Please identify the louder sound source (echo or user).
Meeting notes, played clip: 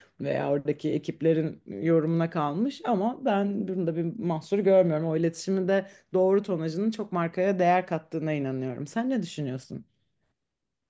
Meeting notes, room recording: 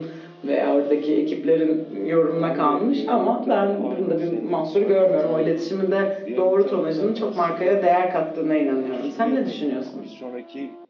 echo